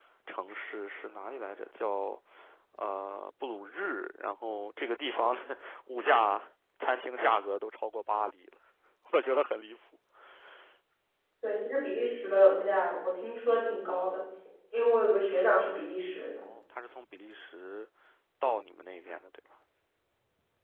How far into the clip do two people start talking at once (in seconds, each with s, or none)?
none